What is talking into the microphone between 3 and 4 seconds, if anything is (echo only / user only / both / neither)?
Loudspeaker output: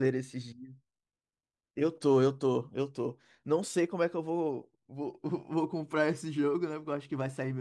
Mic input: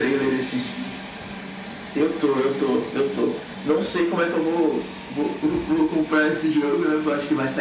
echo only